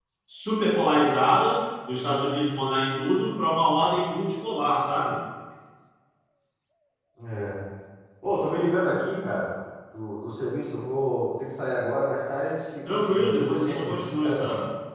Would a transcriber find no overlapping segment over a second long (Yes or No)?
No